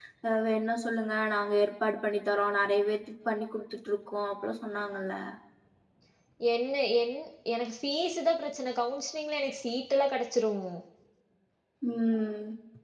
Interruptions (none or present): none